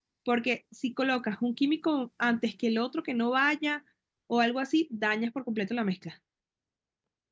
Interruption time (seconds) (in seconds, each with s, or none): none